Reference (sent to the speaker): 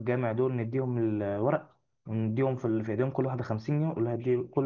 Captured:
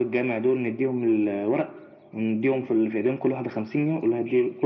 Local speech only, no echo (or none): none